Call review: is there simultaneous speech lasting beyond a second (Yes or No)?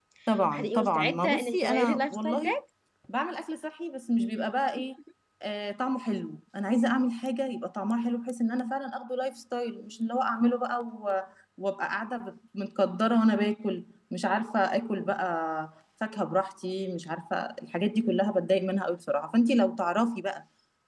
Yes